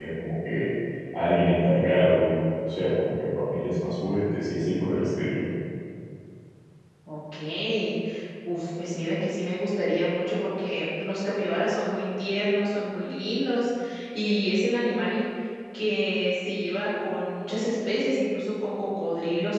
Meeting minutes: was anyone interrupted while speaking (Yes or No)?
No